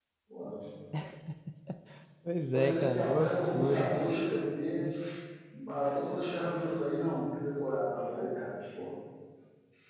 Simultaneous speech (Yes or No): Yes